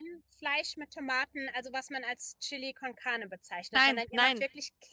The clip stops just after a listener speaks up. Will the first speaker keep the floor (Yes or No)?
Yes